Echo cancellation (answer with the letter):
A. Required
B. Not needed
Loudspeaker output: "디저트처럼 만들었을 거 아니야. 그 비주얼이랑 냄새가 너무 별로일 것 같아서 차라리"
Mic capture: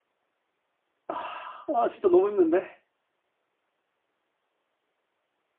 B